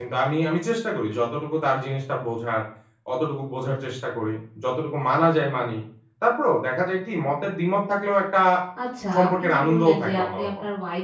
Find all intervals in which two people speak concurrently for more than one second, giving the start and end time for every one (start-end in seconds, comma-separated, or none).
9.1-10.5